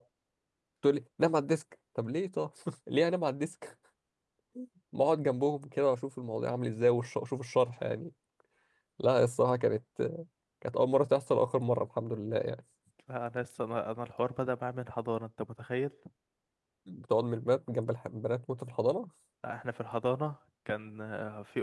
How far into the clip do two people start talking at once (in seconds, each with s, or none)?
none